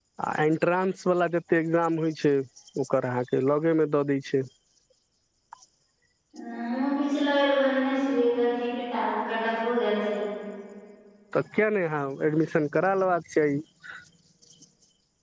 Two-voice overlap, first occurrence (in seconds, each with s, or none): none